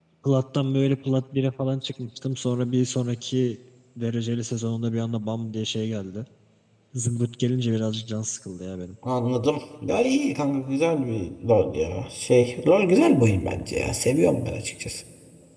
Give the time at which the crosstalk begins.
none

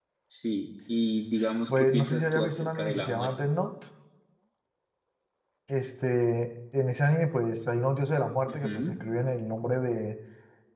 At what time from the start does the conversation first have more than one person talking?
1.7 s

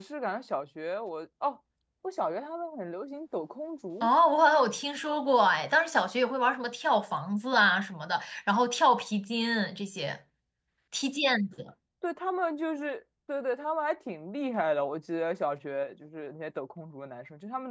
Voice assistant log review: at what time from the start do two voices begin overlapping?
none

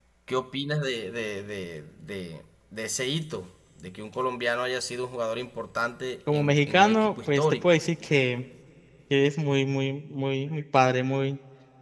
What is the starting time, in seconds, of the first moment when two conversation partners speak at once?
6.3 s

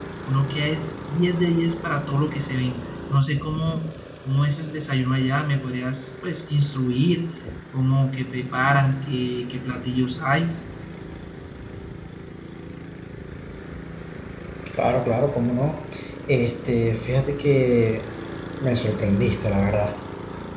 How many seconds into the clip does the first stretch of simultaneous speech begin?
none

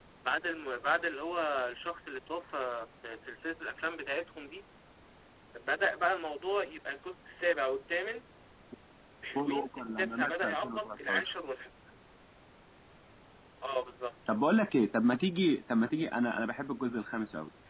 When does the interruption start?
9.3 s

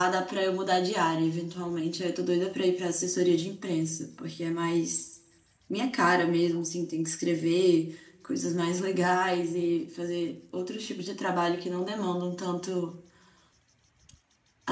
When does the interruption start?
none

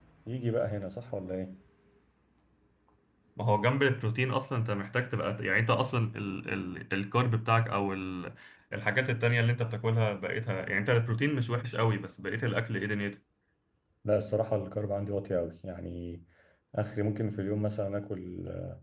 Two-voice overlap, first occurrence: none

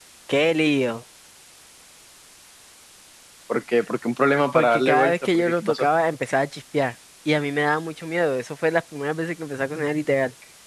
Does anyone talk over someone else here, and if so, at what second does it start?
4.5 s

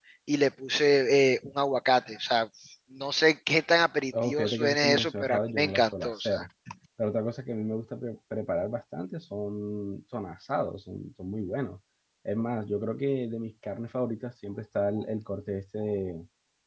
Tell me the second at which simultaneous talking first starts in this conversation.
4.1 s

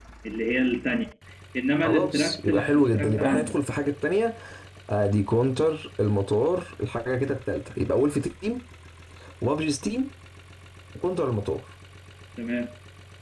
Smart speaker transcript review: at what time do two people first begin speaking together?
1.8 s

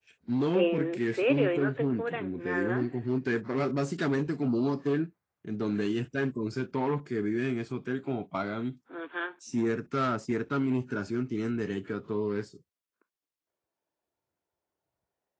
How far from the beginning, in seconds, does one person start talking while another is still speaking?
0.5 s

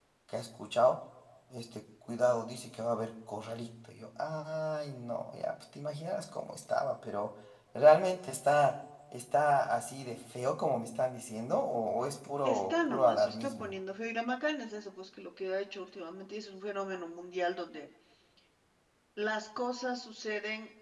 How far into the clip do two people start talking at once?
12.4 s

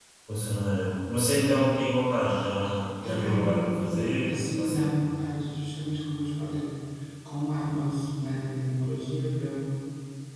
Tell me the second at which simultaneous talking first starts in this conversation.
3.0 s

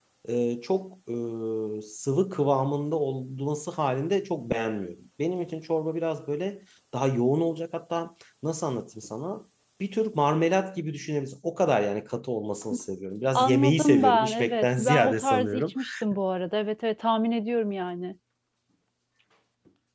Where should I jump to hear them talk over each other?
13.3 s

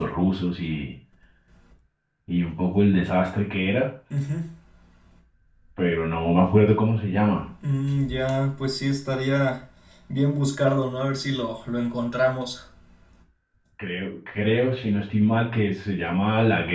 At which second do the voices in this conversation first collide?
none

